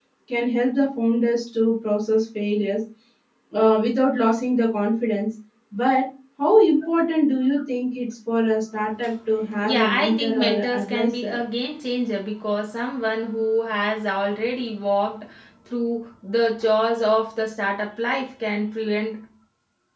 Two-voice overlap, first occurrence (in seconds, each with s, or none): 9.6 s